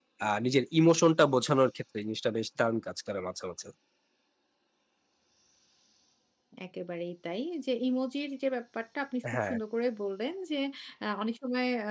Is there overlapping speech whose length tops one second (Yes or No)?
No